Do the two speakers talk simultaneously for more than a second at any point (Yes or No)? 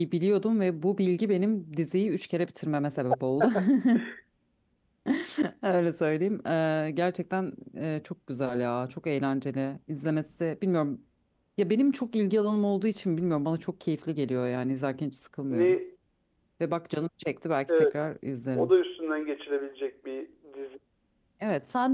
No